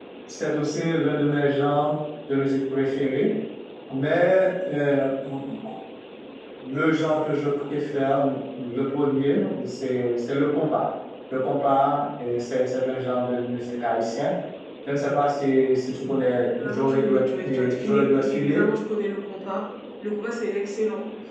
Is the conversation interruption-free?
No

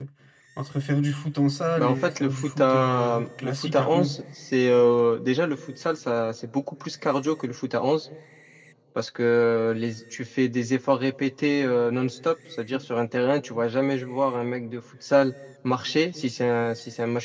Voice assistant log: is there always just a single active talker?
No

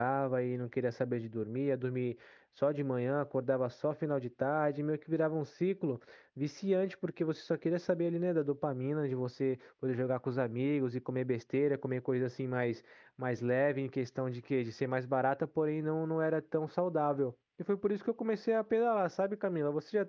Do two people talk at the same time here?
No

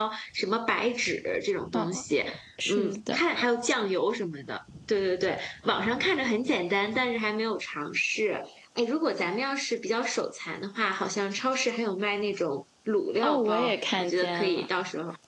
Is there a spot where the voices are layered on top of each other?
Yes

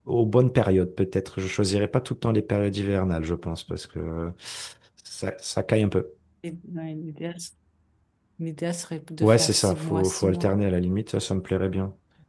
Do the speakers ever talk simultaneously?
Yes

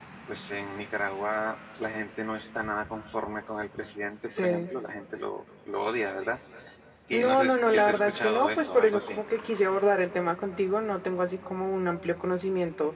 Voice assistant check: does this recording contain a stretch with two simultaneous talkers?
Yes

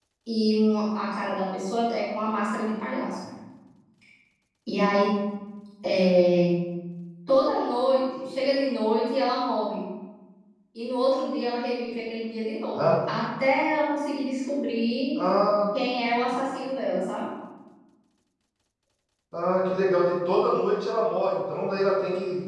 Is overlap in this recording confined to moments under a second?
Yes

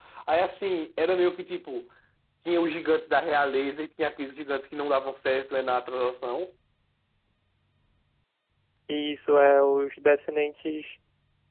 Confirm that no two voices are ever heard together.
Yes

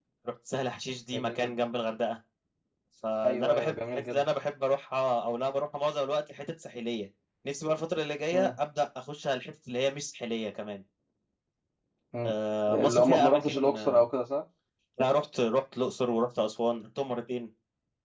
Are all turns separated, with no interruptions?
No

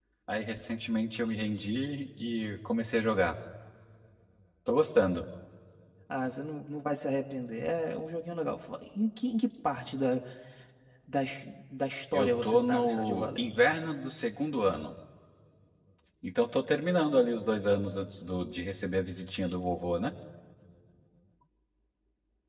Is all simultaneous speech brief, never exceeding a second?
No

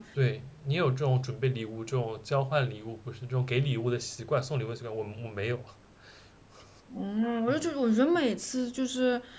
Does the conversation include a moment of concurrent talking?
No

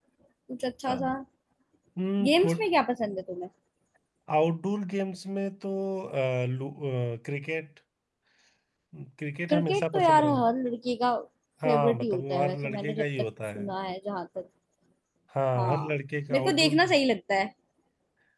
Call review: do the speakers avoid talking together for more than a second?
No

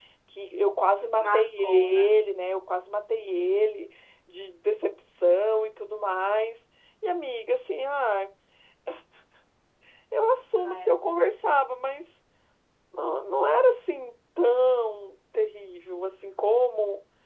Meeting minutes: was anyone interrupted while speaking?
Yes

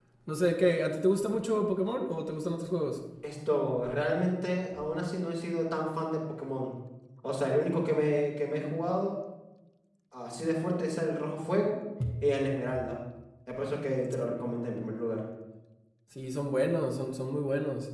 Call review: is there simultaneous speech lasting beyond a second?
No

